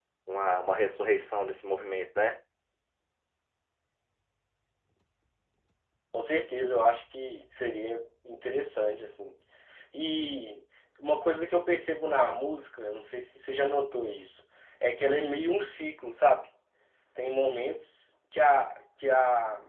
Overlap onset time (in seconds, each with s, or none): none